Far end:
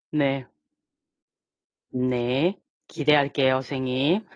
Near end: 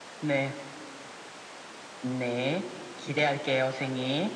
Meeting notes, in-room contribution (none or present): none